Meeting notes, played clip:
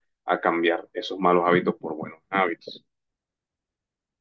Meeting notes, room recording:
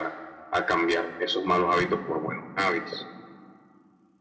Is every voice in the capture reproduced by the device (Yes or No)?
Yes